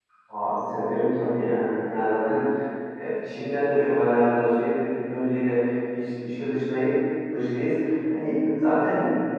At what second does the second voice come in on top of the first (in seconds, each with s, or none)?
none